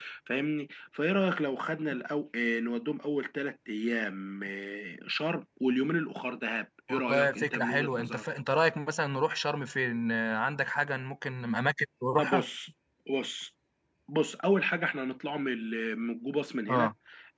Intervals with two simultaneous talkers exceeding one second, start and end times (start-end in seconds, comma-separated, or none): 6.9-8.2